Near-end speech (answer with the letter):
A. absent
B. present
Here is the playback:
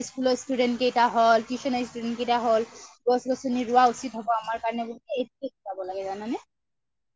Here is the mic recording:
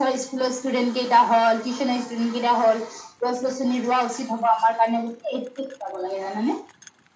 A